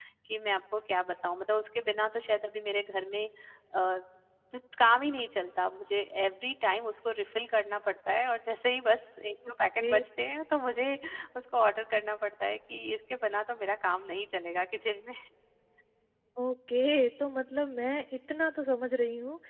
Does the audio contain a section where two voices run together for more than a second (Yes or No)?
No